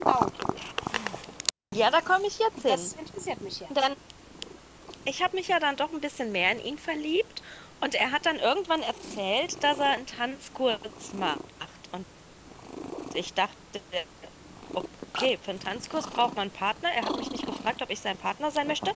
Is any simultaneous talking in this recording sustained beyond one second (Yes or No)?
No